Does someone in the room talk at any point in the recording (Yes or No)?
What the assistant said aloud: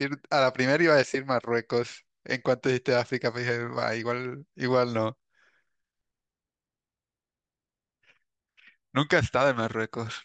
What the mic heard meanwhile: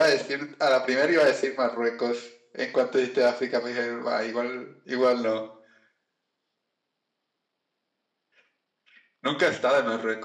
No